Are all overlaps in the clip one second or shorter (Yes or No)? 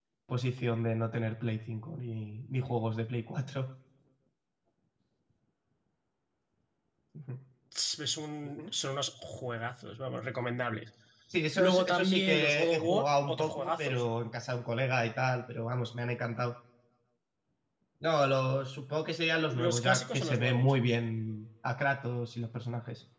No